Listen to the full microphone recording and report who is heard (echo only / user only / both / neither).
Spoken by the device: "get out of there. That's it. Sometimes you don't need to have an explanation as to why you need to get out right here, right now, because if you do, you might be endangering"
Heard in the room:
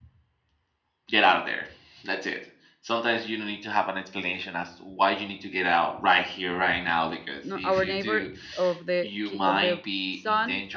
both